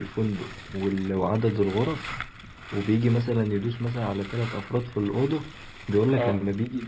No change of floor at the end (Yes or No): Yes